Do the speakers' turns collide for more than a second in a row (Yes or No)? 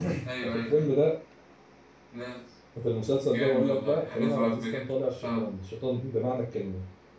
Yes